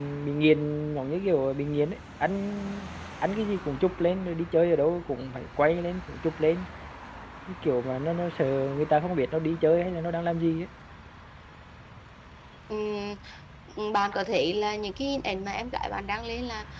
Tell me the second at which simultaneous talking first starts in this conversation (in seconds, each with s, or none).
none